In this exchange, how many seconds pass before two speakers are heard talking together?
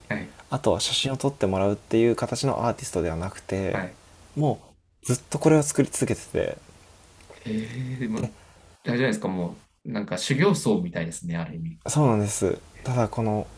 none

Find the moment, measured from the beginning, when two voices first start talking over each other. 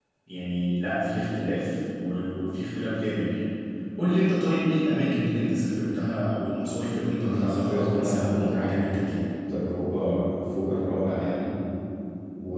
7.2 s

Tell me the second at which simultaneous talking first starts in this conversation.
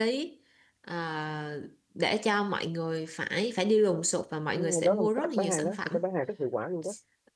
4.6 s

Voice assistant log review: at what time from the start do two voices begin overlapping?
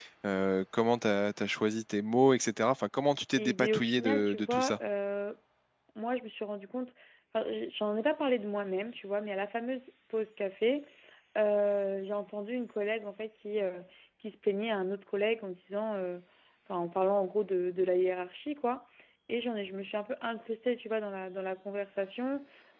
3.4 s

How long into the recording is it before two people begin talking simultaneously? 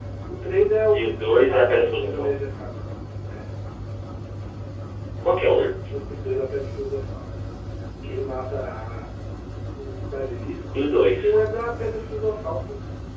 0.9 s

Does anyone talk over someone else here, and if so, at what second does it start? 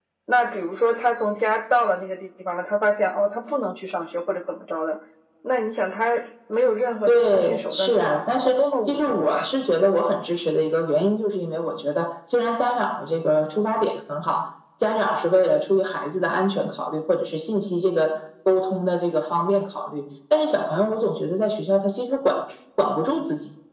7.1 s

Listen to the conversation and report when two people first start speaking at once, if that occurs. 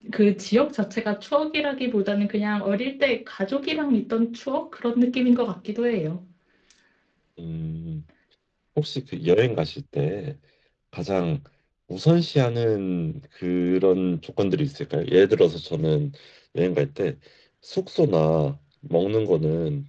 none

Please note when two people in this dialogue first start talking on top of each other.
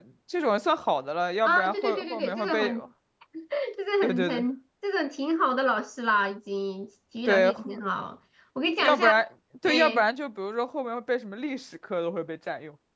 1.4 s

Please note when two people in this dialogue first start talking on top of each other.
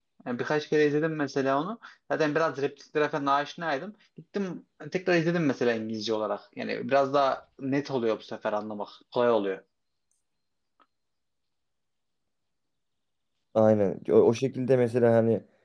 none

